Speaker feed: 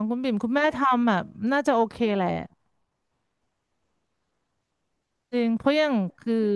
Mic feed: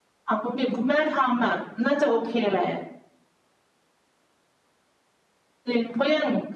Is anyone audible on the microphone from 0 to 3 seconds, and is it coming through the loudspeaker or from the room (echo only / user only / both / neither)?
echo only